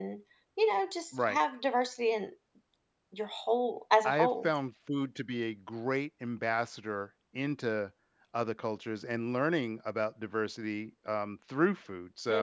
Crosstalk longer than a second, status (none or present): none